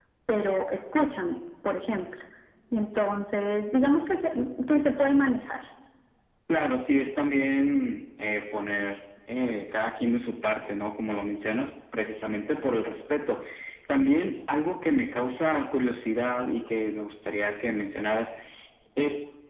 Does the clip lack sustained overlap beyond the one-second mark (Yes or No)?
Yes